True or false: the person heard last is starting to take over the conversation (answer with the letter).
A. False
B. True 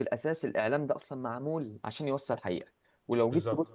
A